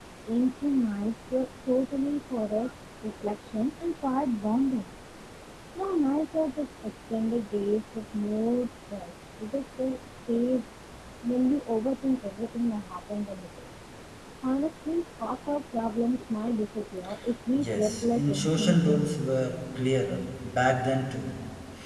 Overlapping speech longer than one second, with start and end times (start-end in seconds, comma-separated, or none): 17.6-19.2